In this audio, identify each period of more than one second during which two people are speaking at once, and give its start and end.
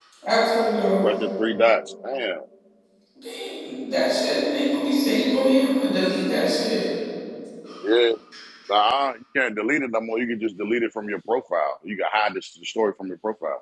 none

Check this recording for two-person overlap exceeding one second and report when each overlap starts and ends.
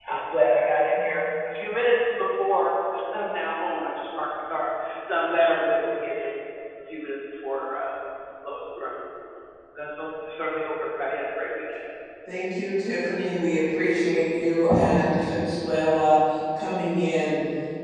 none

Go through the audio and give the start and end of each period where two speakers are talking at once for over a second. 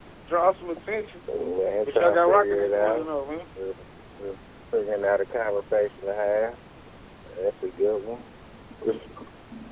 1.9-3.1

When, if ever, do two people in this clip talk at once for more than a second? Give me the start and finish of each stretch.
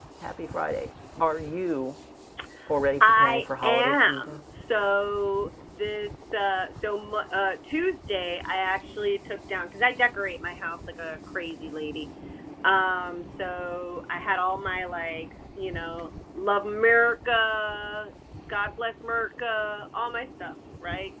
3.0-4.4

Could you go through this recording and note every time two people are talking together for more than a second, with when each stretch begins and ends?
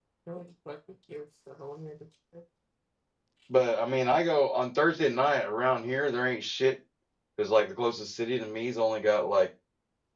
none

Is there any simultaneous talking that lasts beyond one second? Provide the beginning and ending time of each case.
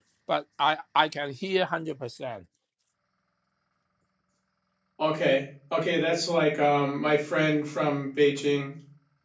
none

